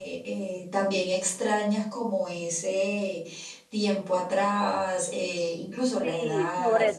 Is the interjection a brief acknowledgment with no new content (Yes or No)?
No